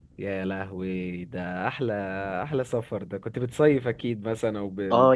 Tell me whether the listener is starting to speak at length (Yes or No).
Yes